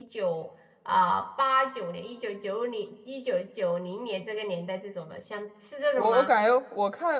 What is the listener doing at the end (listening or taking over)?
taking over